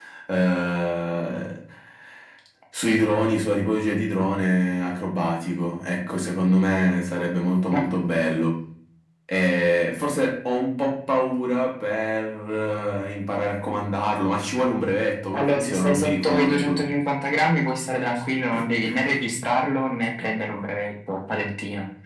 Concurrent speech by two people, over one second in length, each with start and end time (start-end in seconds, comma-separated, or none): 15.3-16.9